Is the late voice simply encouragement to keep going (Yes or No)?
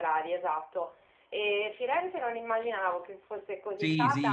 No